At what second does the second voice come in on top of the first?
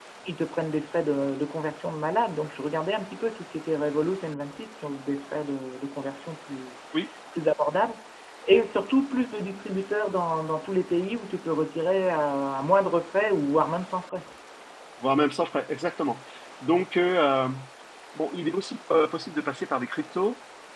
none

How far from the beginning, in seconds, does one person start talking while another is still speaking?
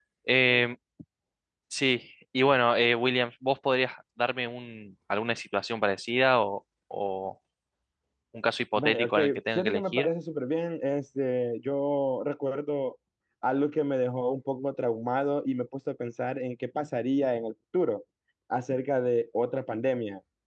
8.8 s

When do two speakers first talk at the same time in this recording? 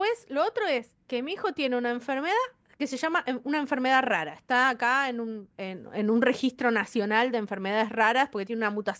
none

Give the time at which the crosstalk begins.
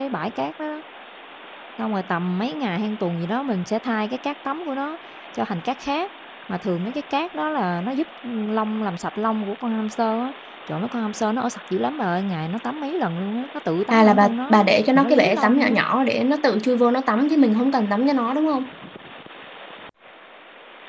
13.9 s

